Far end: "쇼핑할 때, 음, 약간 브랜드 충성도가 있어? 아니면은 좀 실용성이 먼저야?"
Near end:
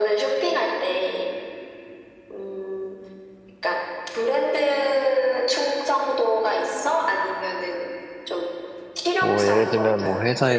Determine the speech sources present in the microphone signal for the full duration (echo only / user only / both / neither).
both